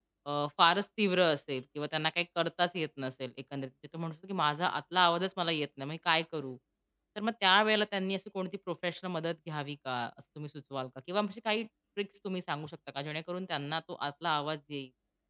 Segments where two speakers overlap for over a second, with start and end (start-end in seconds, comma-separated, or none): none